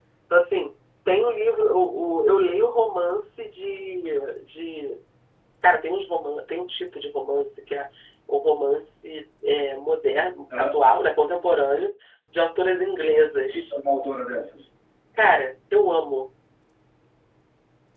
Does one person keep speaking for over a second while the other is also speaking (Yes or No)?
No